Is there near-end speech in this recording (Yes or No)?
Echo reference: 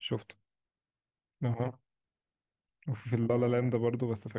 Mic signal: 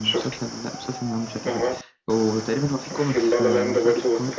Yes